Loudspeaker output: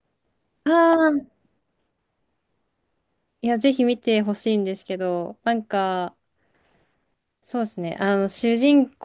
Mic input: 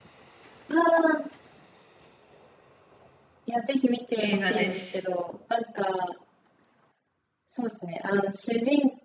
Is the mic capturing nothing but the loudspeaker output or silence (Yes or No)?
No